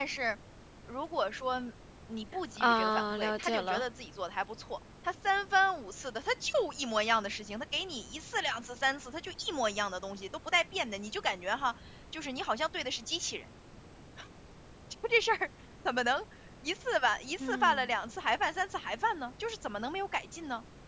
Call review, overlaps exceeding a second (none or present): present